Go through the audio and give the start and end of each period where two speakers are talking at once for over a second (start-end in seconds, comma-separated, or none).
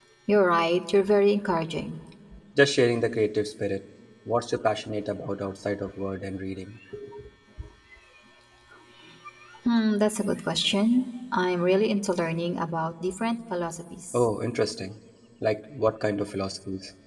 none